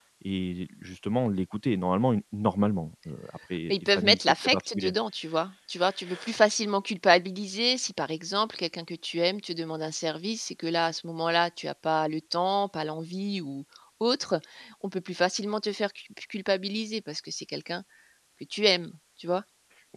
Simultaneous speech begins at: 3.7 s

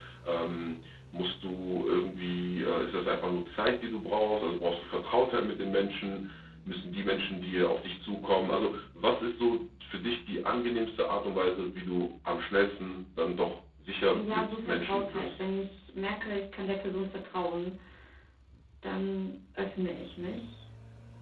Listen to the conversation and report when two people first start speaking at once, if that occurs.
14.1 s

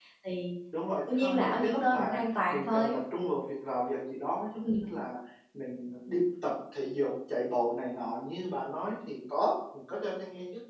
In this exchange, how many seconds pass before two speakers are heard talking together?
0.9 s

